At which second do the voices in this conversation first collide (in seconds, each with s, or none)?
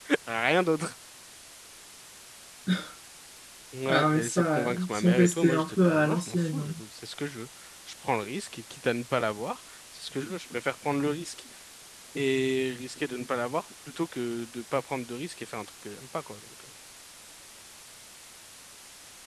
3.9 s